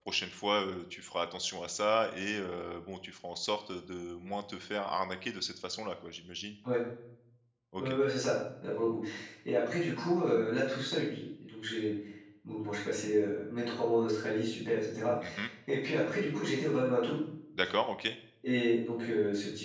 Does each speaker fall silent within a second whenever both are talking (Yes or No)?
Yes